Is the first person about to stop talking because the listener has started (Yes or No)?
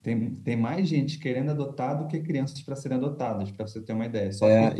Yes